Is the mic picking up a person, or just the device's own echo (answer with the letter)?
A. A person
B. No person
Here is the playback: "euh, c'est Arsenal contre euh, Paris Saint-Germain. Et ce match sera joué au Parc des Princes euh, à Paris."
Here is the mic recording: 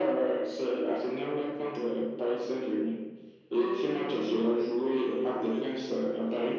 A